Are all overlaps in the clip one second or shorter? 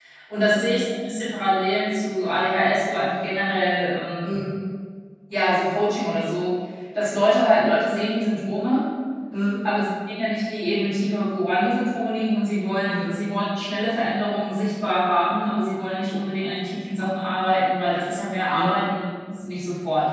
Yes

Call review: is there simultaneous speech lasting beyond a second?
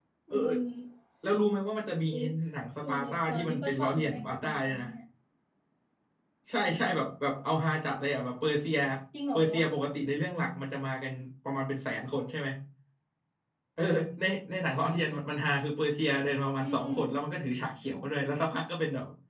Yes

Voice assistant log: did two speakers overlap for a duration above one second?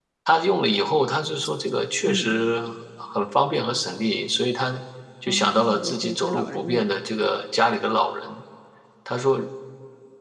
Yes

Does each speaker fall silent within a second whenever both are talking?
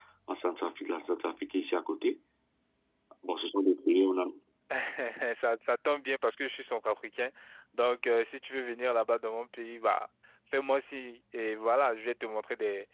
Yes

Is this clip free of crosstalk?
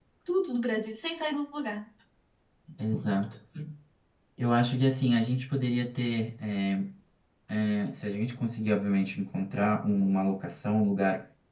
Yes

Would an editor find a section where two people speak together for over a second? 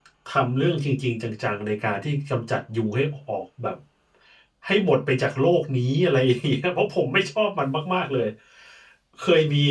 No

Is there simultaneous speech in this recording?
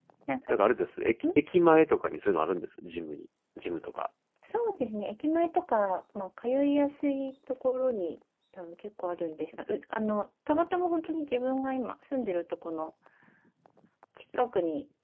No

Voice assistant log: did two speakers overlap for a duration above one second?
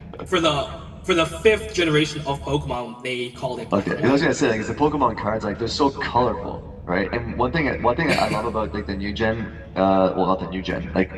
No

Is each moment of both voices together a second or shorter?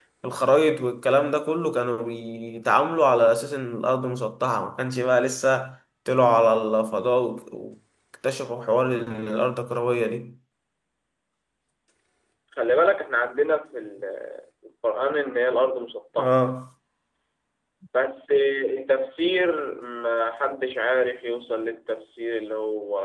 Yes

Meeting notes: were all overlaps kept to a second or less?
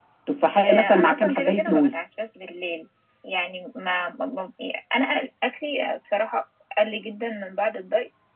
No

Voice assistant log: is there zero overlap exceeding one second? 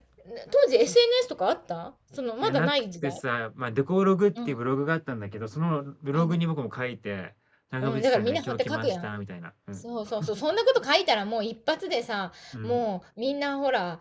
No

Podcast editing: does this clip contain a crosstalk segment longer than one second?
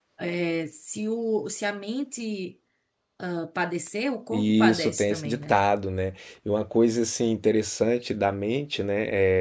Yes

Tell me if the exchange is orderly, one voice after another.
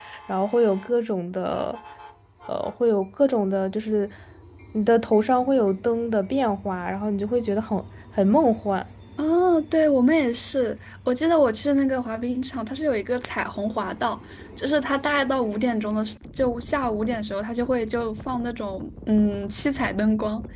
Yes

